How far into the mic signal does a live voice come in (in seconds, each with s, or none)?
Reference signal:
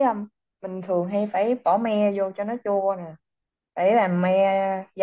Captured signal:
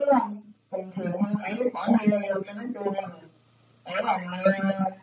none